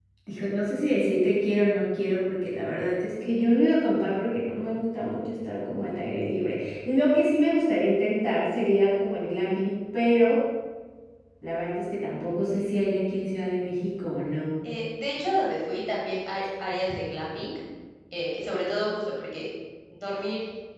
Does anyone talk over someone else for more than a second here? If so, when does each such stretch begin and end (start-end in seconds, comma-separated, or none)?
none